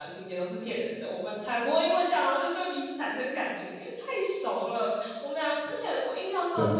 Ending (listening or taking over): listening